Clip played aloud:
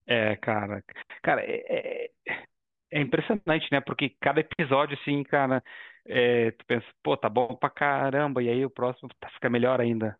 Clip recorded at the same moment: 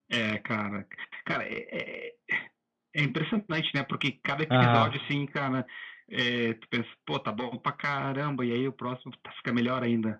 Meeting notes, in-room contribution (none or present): present